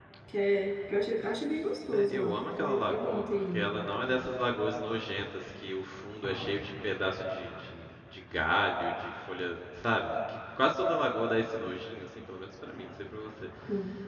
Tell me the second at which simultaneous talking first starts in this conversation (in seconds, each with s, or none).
1.9 s